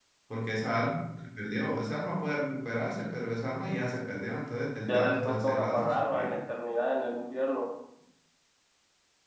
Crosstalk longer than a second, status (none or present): present